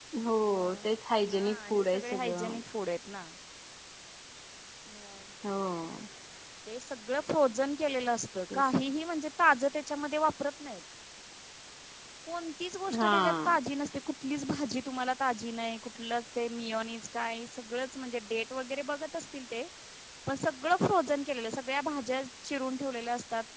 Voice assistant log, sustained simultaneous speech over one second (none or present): present